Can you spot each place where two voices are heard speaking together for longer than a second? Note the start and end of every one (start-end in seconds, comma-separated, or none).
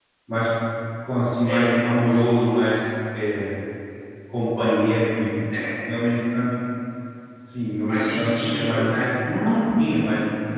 1.4-2.7, 7.9-9.1